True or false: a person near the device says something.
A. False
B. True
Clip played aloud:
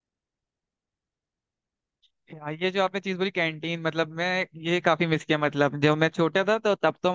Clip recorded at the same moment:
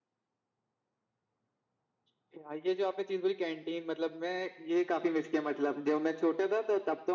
A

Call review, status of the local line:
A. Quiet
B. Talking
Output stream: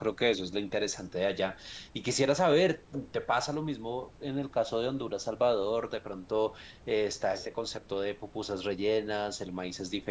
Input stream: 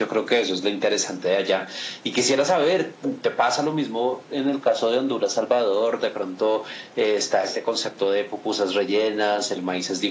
A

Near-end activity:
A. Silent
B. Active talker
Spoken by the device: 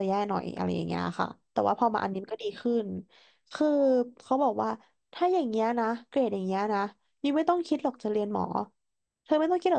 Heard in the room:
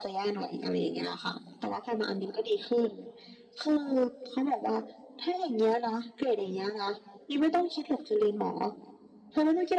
A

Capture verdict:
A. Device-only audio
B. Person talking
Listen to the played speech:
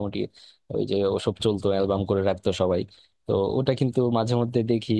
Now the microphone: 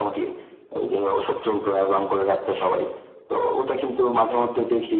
A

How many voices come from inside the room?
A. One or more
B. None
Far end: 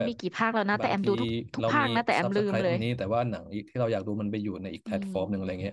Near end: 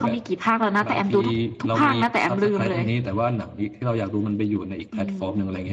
B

